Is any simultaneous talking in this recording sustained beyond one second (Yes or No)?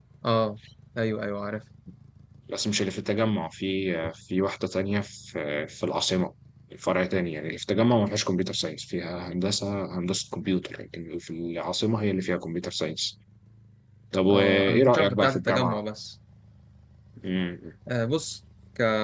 Yes